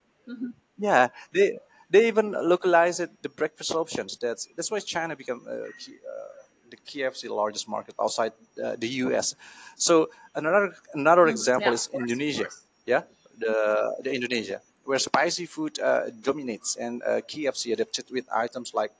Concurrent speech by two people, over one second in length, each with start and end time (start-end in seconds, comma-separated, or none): 11.2-12.5